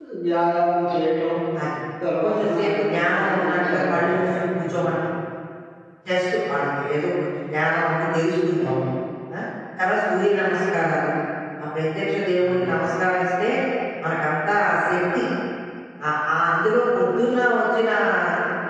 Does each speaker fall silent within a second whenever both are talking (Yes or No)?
No